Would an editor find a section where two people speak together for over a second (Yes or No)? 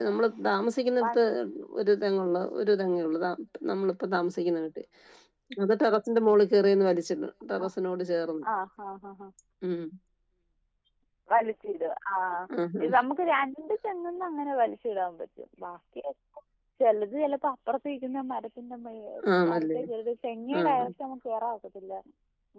No